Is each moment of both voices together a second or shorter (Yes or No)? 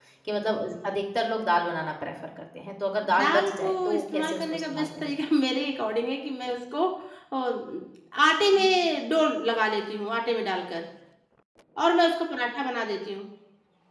No